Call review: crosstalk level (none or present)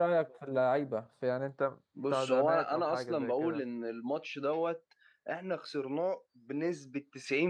present